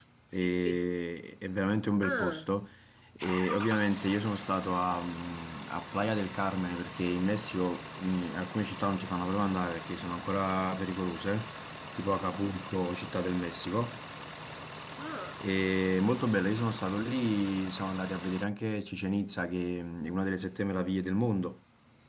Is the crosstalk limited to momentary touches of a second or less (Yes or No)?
Yes